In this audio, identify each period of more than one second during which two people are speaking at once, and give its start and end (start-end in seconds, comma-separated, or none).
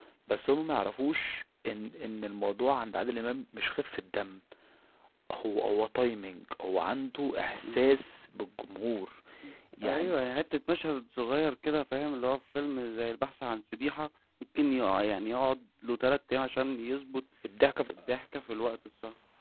none